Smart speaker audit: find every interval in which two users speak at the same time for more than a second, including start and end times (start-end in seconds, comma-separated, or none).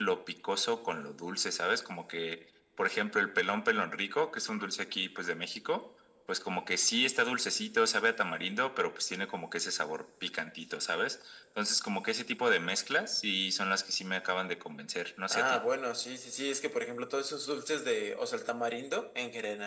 none